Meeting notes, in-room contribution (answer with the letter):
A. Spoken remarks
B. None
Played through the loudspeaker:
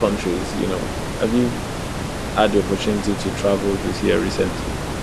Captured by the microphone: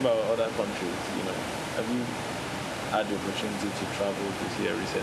B